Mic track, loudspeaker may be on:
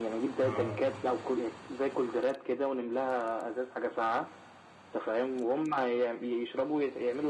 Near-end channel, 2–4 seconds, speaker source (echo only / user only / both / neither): echo only